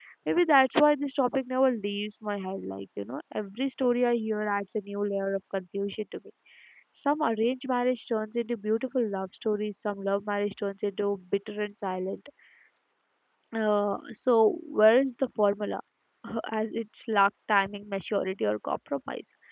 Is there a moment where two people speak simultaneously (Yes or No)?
No